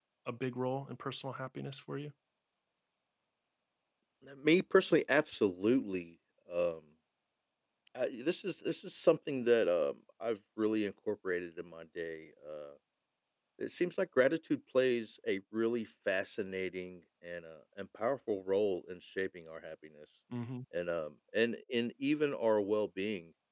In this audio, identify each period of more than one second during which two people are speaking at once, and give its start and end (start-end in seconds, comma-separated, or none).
none